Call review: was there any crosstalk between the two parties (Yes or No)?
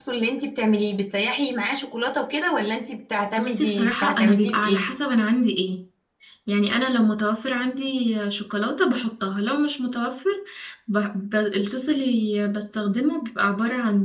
Yes